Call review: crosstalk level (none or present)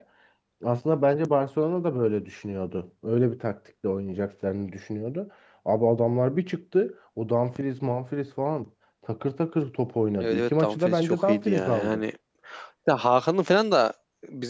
present